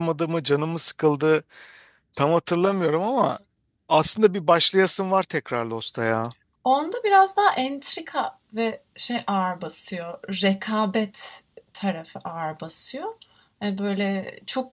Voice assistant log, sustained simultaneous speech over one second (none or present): none